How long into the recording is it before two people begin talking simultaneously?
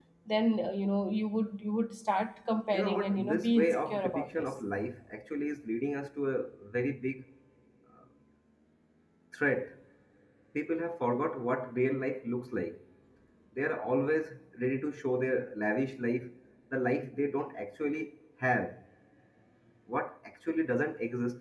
3 s

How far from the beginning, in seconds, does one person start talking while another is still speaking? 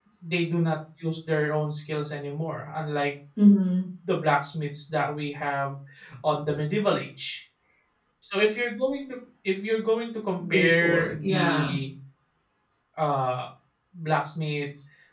10 s

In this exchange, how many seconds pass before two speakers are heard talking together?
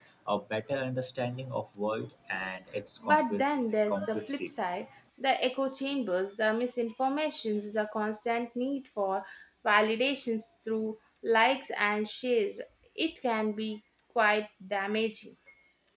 3 s

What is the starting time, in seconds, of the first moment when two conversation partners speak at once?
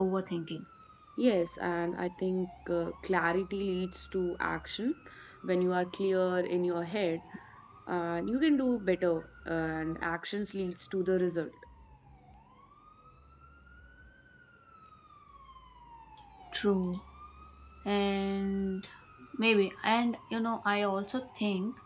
none

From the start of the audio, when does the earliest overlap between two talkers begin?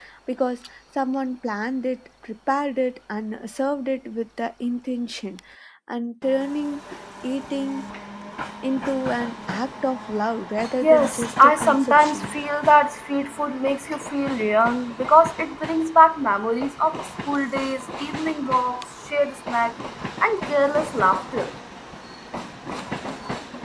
11 s

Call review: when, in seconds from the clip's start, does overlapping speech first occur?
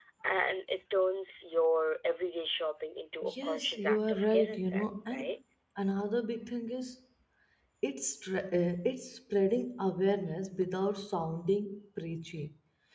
3 s

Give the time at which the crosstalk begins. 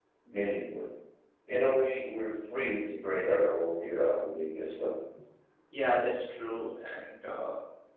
none

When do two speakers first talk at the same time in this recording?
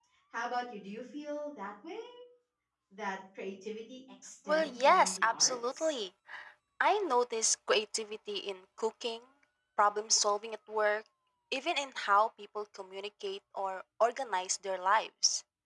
4 s

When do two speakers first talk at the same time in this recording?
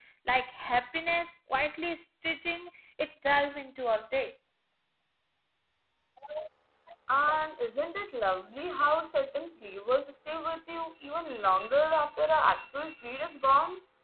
none

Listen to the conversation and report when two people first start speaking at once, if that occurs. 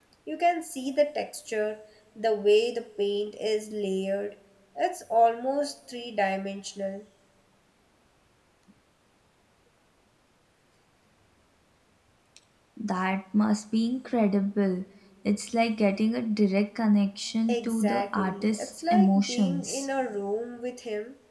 17 s

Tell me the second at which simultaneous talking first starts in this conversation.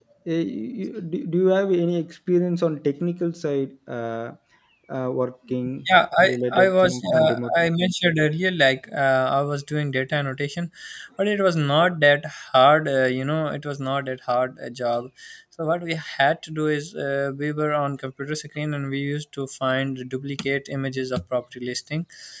6 s

